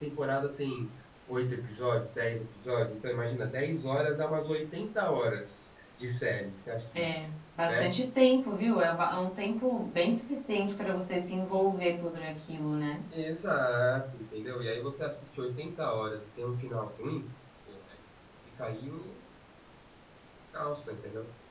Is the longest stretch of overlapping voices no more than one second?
Yes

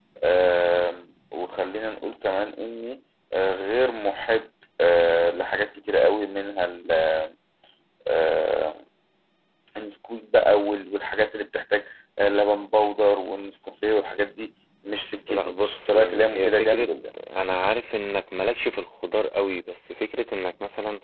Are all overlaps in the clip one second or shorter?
No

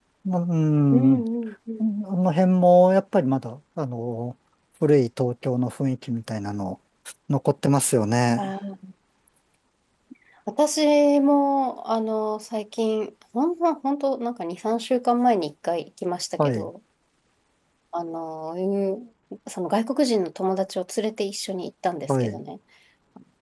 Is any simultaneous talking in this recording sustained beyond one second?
No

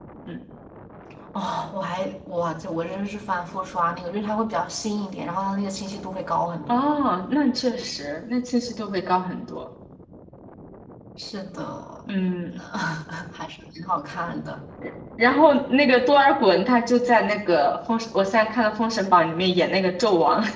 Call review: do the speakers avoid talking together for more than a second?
Yes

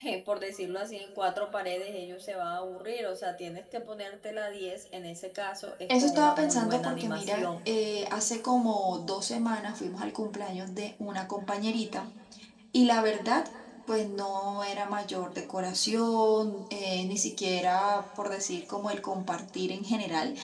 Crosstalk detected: Yes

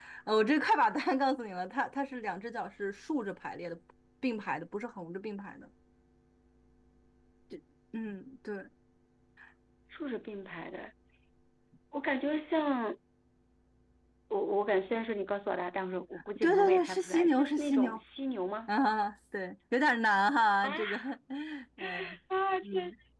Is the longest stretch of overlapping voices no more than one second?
No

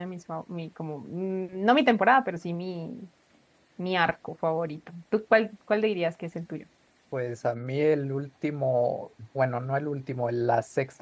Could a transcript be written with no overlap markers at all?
Yes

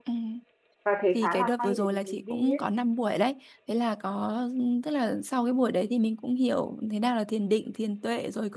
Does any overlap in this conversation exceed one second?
Yes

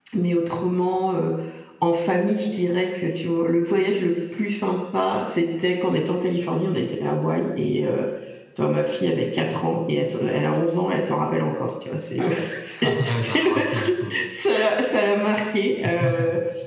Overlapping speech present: Yes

